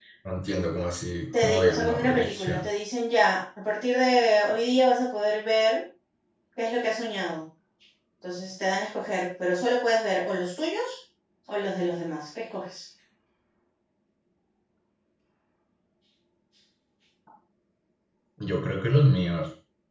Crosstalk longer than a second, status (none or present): present